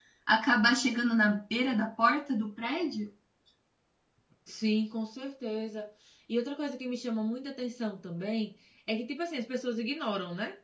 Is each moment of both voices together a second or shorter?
Yes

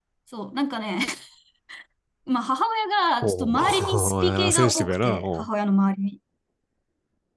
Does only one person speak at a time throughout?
No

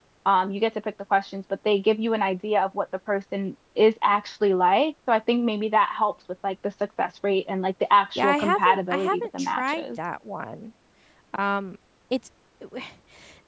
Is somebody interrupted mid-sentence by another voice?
Yes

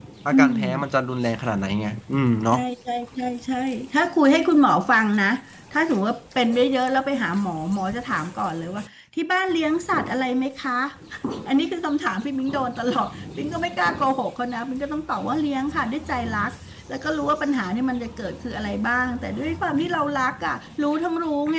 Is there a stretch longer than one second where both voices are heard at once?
No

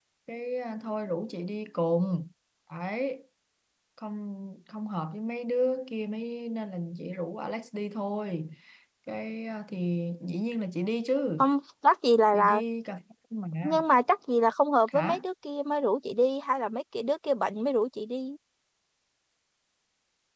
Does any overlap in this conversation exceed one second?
No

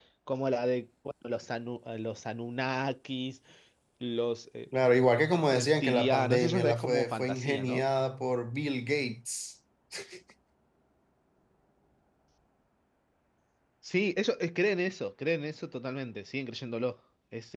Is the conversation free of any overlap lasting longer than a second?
No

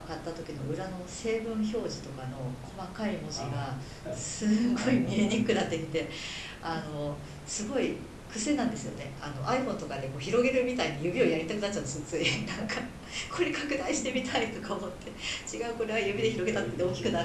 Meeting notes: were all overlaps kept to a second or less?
No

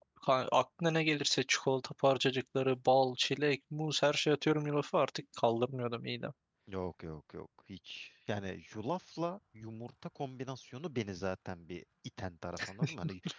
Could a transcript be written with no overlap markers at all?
Yes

